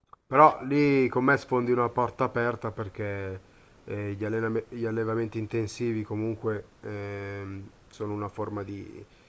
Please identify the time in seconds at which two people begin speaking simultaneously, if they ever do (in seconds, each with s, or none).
none